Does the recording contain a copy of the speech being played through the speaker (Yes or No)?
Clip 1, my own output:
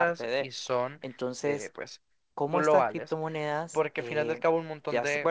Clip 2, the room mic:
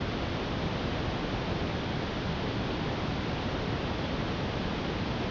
No